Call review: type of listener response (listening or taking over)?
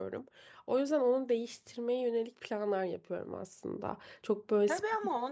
taking over